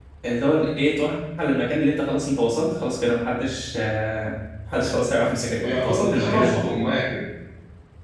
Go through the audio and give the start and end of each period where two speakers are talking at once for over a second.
5.6-6.8

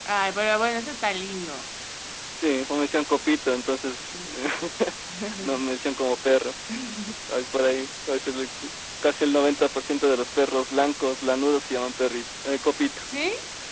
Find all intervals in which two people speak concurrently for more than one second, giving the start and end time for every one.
none

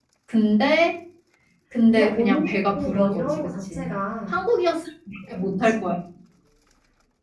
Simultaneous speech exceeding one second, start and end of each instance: 1.9-3.9

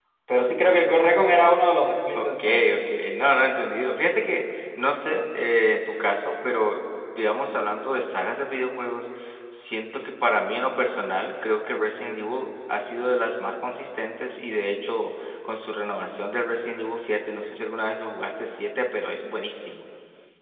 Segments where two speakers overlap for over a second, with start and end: none

